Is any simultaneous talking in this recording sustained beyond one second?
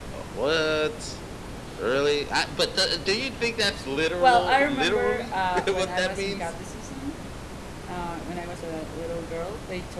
Yes, from 4.2 s

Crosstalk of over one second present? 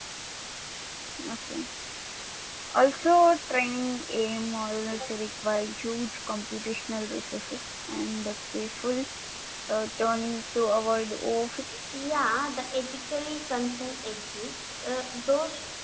No

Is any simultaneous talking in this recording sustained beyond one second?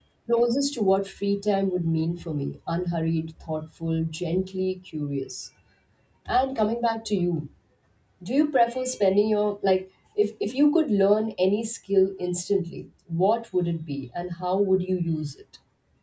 No

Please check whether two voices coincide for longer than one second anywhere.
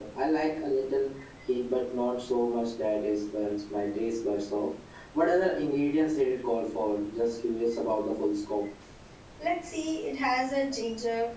No

